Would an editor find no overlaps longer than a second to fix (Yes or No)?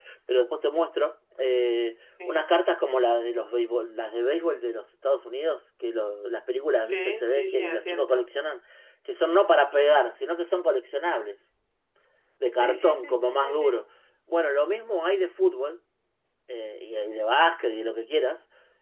No